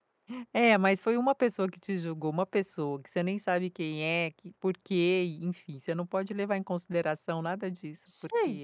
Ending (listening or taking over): listening